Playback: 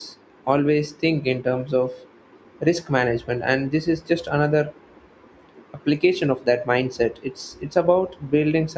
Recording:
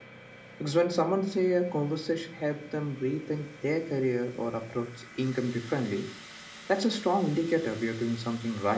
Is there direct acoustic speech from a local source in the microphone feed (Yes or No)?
Yes